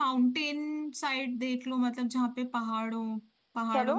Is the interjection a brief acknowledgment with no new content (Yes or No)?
Yes